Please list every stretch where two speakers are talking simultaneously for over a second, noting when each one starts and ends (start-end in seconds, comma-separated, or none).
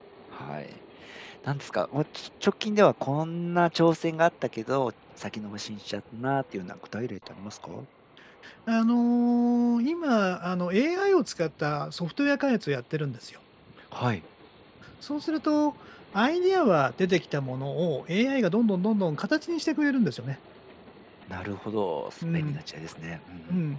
none